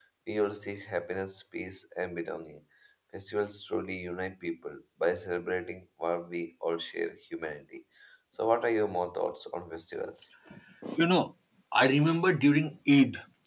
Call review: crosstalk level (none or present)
none